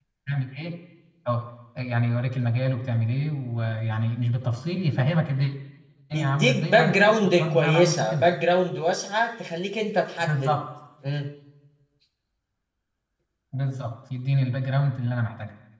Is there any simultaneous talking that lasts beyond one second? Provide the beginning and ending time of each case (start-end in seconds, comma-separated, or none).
6.1-8.3